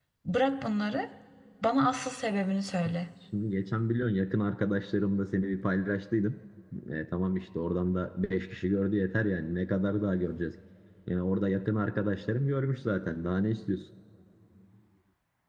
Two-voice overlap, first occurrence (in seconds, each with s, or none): none